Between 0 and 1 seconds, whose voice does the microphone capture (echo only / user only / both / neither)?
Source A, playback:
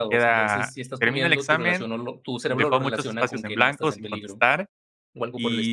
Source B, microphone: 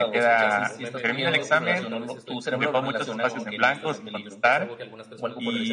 both